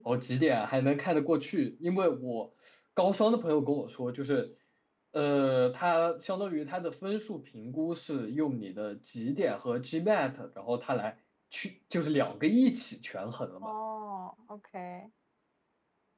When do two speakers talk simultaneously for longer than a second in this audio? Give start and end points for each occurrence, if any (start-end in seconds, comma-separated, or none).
none